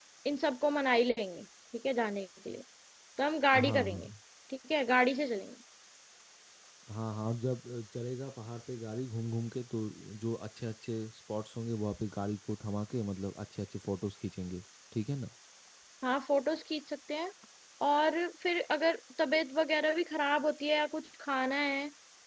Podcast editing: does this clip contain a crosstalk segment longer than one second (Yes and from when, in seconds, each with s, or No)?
No